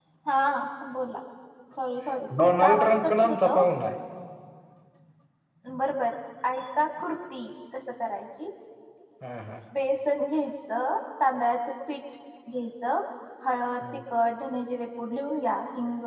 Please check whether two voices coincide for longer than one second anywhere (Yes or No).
Yes